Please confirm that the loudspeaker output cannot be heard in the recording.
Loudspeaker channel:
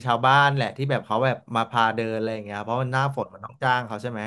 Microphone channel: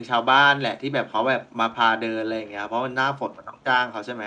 No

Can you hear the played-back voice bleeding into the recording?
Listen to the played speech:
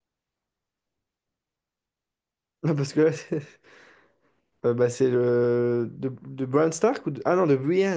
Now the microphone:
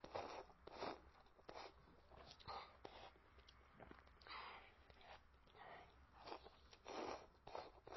No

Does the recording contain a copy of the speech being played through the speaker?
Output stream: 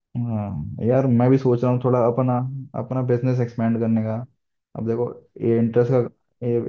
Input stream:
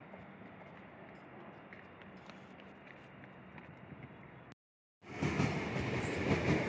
No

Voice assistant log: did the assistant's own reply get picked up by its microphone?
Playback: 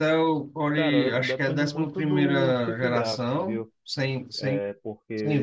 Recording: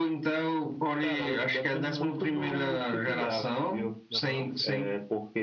Yes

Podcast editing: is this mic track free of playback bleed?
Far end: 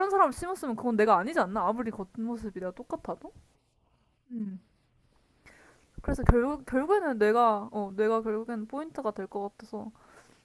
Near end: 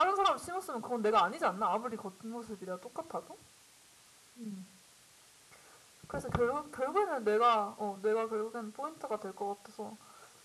No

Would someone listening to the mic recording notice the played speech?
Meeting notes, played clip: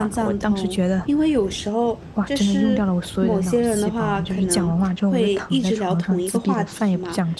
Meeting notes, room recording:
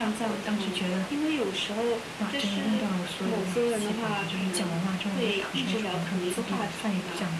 Yes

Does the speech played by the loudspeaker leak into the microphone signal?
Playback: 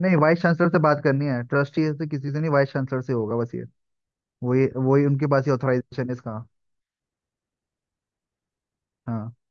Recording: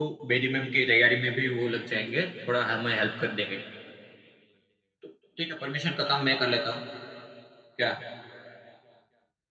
No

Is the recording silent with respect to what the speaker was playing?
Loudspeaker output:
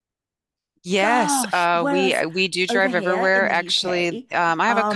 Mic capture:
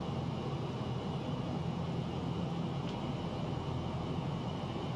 Yes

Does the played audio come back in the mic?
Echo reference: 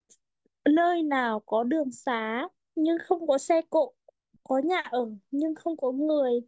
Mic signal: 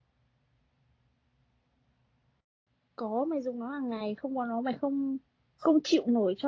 No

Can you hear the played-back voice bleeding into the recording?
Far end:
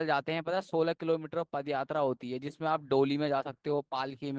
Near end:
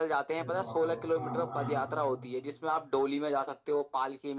Yes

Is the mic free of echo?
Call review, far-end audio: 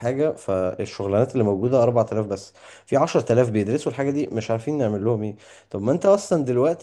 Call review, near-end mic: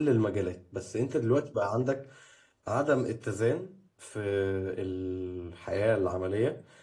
Yes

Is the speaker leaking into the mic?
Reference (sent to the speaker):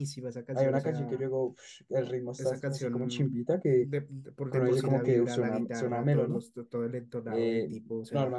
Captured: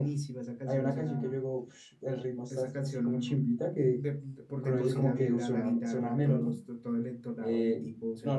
Yes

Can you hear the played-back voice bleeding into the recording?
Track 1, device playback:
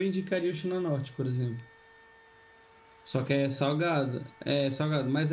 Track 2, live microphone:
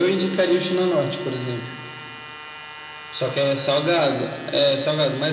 Yes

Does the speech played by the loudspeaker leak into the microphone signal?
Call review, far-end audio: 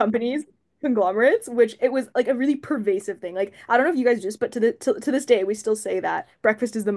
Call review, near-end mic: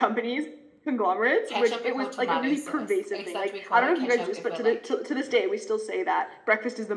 Yes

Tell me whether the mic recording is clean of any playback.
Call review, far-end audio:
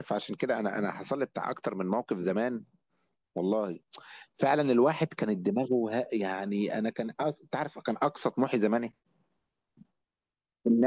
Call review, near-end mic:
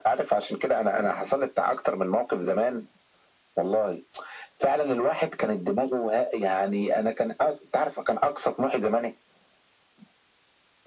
No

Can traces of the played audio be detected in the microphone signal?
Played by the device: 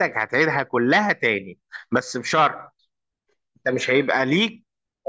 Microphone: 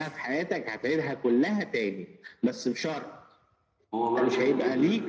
Yes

